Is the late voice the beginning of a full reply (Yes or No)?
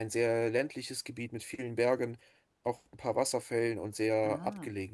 Yes